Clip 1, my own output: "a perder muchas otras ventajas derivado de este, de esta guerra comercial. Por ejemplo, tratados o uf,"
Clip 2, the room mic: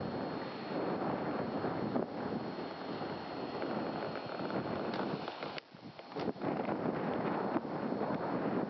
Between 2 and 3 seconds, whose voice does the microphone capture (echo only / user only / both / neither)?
neither